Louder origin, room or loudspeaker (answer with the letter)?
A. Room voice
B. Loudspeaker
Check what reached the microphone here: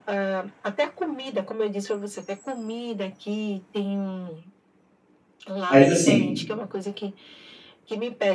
A